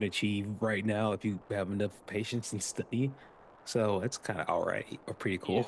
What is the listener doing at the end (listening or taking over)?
taking over